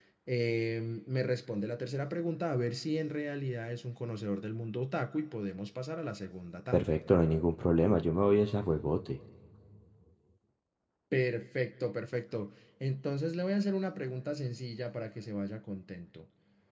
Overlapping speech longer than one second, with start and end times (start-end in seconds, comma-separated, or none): none